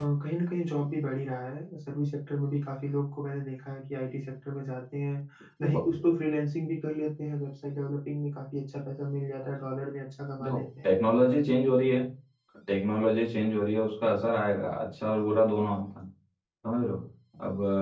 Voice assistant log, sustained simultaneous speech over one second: none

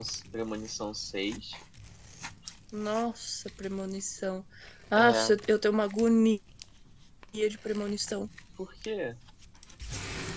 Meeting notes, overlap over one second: none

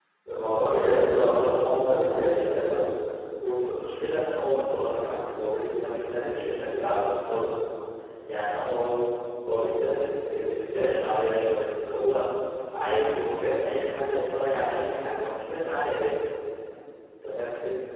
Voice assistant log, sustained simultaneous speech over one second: present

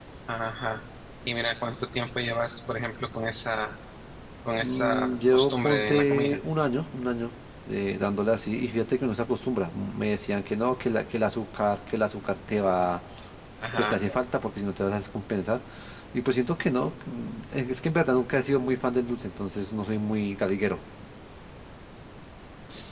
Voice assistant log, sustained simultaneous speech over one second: present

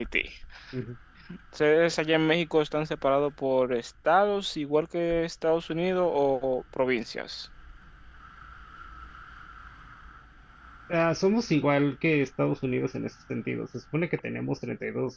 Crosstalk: none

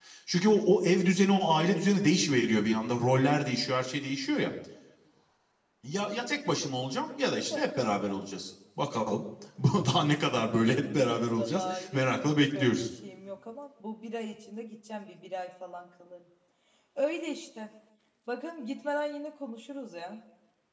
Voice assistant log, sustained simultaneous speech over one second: present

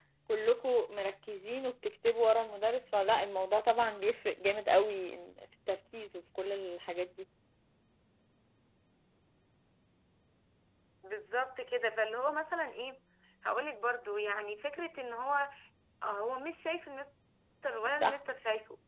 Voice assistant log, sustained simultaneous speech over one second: none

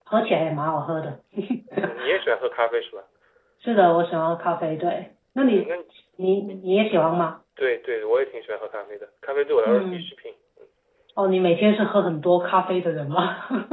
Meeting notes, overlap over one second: none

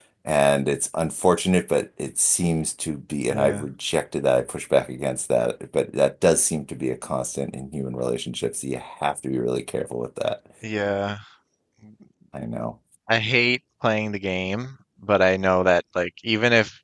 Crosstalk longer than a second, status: none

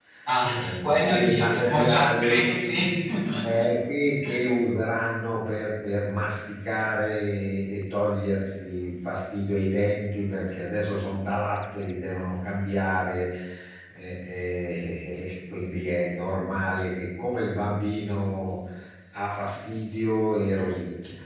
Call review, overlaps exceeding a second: present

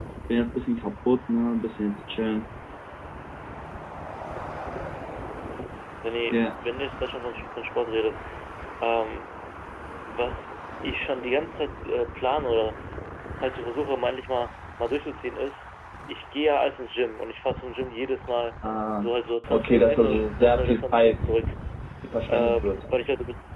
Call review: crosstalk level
present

